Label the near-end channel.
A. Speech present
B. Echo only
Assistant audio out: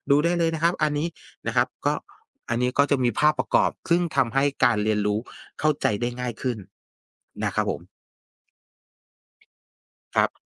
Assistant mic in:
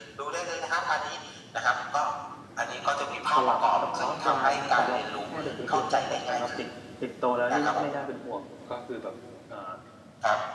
A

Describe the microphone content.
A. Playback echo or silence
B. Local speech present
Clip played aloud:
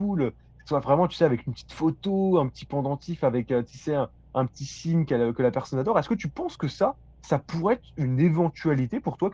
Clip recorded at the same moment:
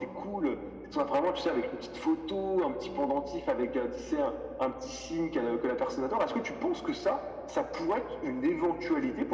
A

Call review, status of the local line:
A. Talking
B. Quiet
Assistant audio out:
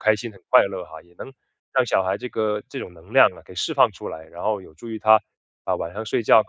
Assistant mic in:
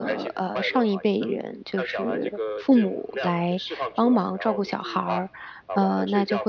A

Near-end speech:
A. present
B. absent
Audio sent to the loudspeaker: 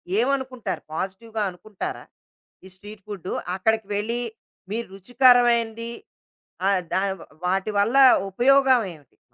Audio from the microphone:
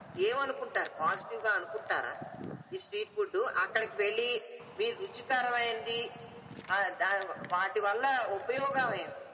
B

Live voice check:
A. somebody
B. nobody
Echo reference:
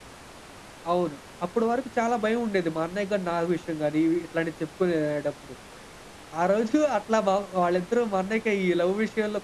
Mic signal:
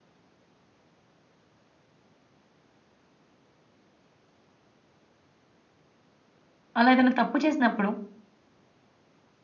A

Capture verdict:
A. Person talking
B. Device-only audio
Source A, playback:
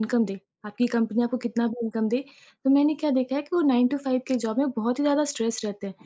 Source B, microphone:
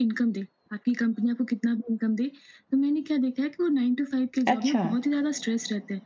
A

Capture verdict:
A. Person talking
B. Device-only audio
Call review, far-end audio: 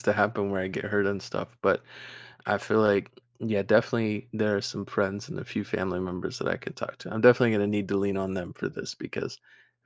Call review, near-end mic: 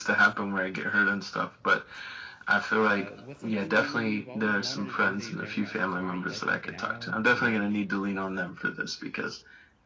A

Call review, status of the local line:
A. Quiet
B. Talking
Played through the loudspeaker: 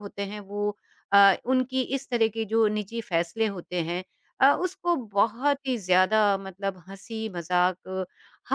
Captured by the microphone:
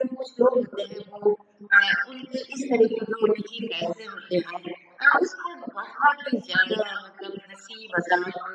A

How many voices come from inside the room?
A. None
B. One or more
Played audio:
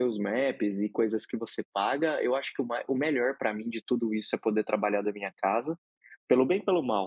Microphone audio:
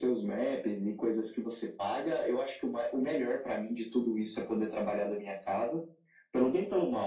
A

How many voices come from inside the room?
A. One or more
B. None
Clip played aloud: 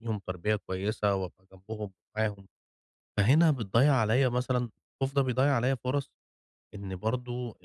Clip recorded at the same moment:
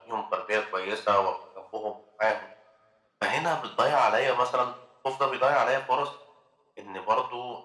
B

